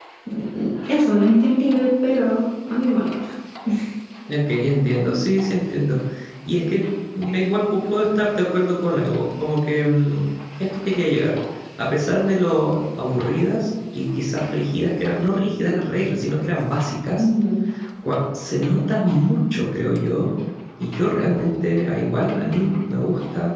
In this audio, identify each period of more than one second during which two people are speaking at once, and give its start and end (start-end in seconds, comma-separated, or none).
none